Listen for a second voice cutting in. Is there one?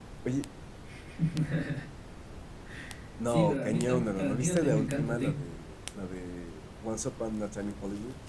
Yes, from 3.3 s

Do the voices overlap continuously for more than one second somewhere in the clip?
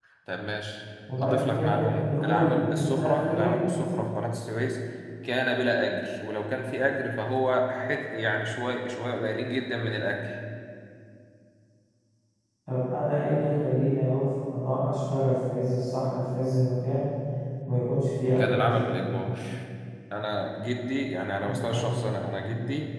Yes, from 1.2 s

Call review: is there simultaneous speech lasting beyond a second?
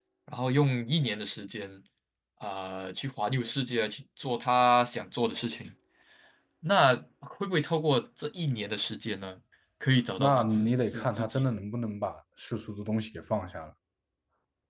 Yes, from 10.2 s

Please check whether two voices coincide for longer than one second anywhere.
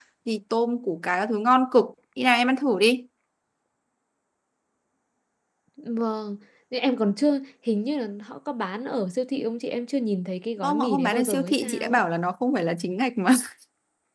Yes, from 10.6 s

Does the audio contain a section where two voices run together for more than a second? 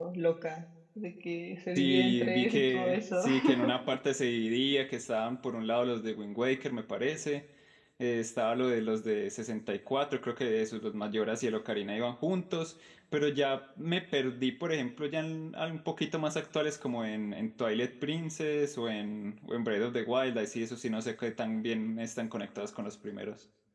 Yes, from 1.8 s

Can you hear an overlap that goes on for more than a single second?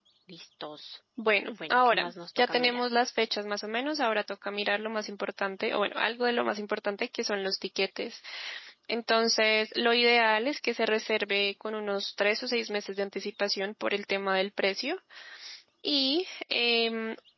Yes, from 1.5 s

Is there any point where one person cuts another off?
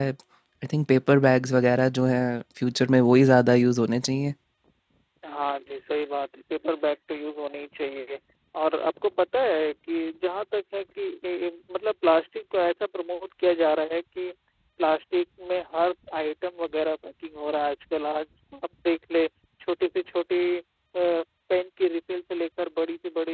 No

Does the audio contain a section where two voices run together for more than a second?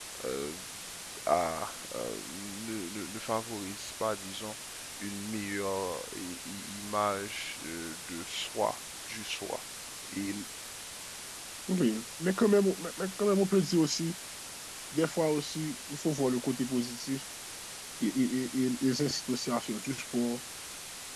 No

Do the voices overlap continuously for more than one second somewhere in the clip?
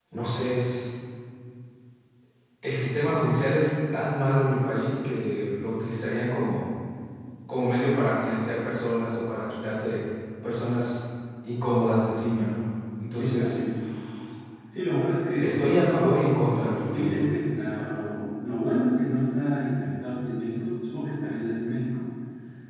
No

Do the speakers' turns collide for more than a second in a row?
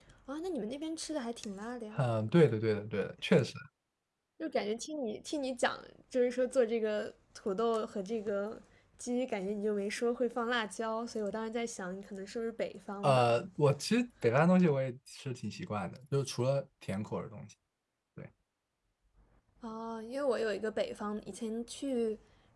No

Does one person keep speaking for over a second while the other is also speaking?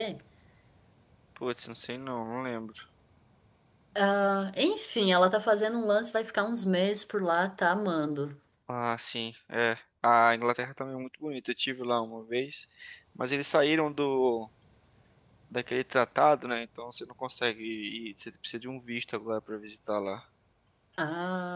No

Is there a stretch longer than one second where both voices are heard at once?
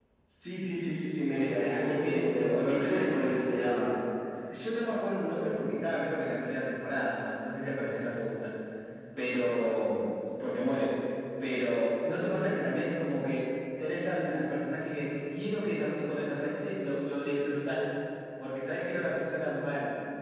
Yes, from 1.3 s

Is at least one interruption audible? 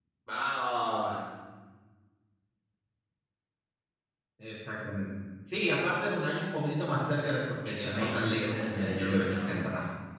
Yes, from 7.7 s

